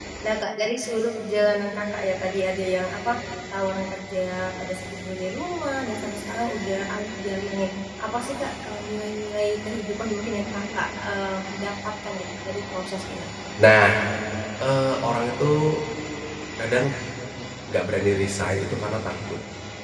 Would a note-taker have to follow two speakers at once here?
No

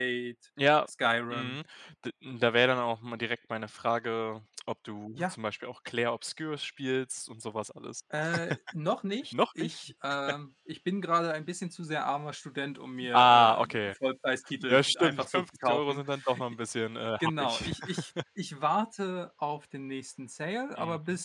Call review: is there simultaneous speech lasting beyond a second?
Yes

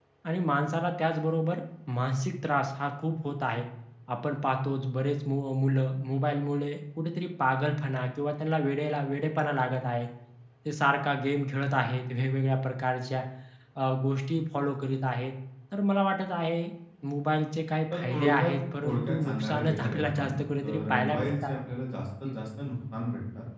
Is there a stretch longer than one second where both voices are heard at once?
Yes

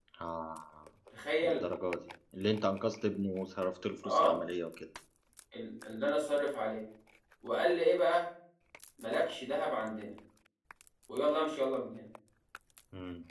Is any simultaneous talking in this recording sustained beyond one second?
No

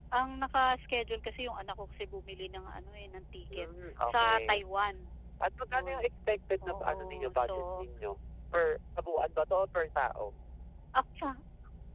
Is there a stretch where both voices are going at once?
Yes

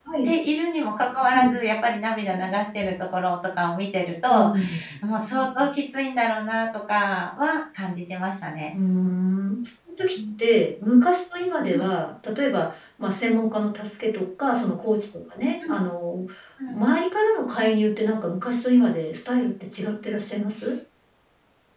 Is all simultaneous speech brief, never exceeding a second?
Yes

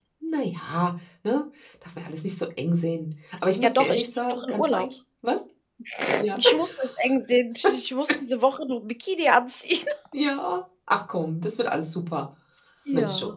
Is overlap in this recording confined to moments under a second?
No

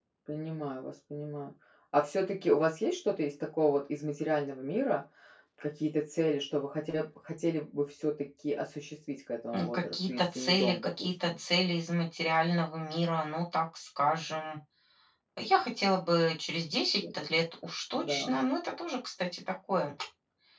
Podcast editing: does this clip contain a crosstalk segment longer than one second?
Yes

